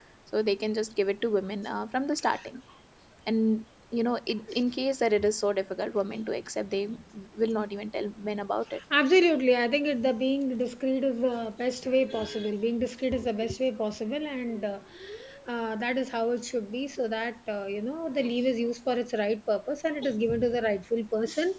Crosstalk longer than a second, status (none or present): none